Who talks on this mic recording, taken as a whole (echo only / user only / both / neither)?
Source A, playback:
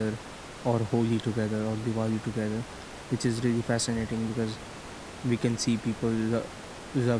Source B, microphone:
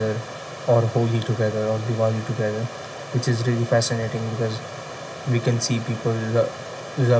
echo only